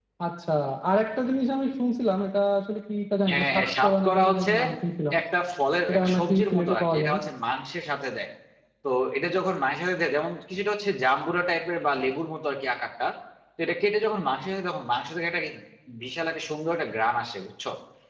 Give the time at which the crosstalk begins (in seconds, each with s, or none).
3.3 s